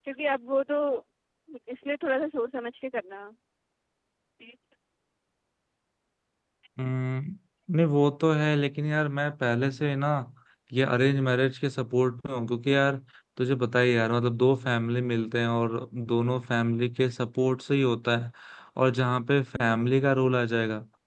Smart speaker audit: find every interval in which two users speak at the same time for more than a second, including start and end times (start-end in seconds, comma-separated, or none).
none